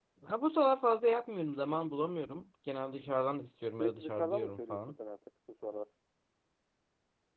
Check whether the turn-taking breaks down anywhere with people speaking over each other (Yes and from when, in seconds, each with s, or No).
Yes, from 3.7 s